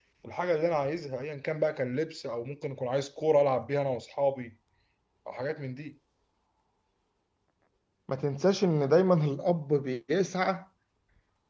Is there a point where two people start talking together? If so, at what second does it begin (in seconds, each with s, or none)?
none